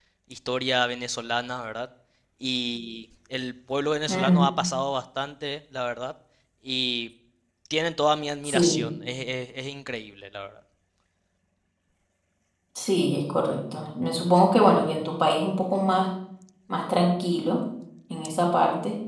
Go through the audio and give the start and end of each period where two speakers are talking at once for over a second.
none

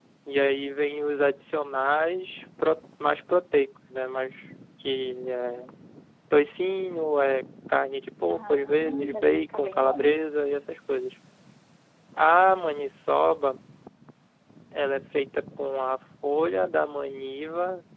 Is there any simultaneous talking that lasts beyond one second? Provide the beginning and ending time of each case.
8.3-10.1

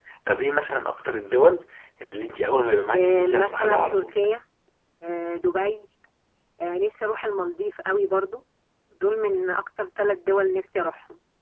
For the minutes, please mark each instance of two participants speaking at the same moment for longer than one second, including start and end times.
2.9-4.2

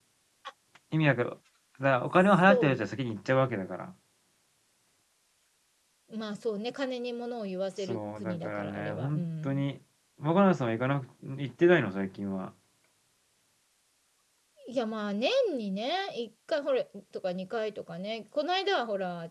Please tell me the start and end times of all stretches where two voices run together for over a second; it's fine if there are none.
7.9-9.6

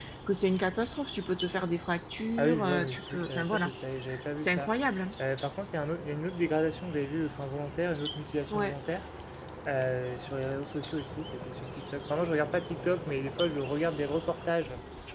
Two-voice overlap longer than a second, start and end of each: 2.4-3.7

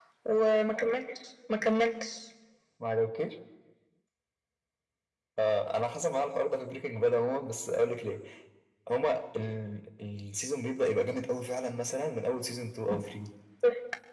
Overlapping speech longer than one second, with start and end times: none

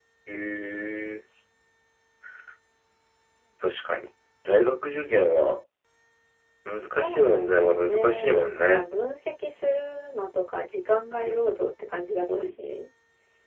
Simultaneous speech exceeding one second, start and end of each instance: 7.0-8.8

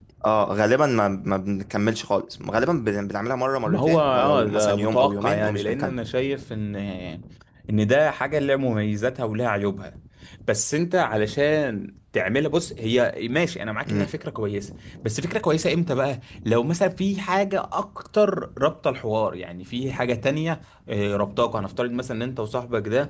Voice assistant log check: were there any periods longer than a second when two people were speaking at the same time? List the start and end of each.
3.7-5.9

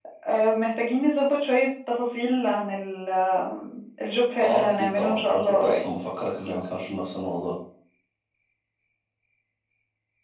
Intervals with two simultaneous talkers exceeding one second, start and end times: 4.4-5.8

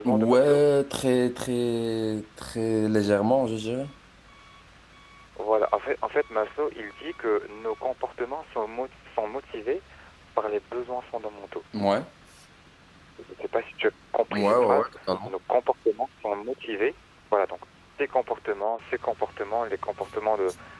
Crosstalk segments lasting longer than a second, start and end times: none

